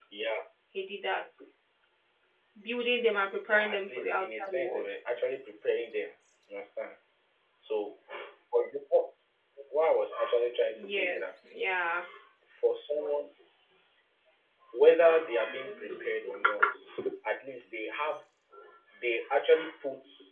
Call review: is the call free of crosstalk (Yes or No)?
No